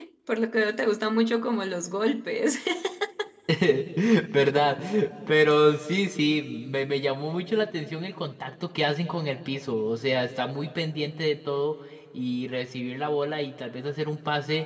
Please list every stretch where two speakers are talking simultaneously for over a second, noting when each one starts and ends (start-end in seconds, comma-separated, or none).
none